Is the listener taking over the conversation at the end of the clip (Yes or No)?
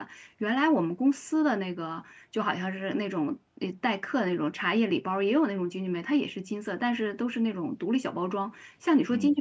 No